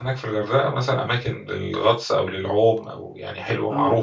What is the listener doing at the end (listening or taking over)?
taking over